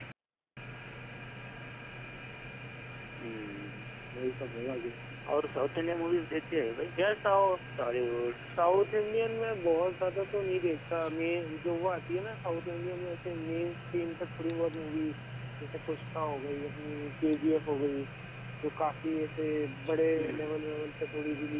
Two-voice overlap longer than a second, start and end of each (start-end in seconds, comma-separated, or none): none